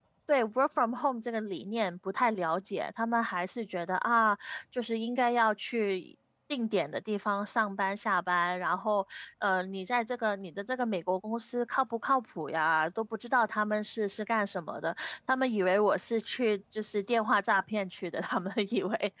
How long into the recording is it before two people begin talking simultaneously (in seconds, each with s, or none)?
none